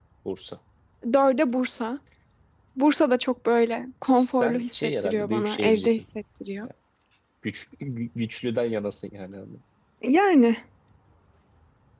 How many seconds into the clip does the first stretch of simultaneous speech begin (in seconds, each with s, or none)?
4.0 s